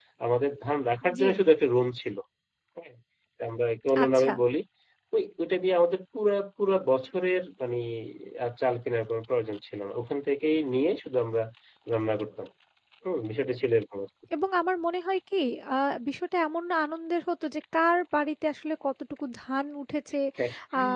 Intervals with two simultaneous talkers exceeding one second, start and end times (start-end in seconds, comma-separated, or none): none